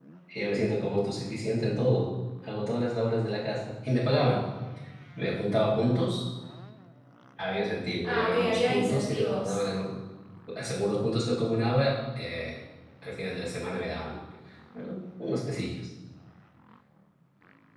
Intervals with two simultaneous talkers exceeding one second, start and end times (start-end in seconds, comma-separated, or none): 8.0-9.6